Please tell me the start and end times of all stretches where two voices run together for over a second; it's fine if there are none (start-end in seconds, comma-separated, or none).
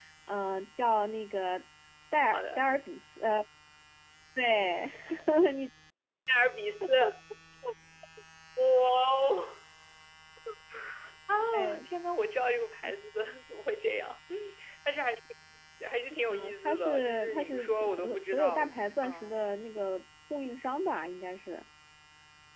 16.3-18.6